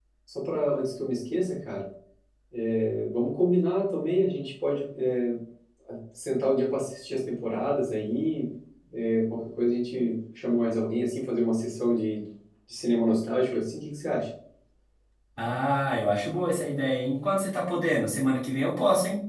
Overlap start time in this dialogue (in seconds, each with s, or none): none